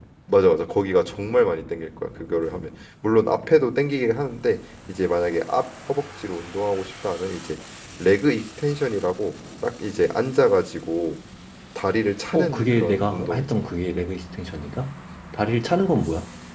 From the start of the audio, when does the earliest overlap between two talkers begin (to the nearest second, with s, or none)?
12 s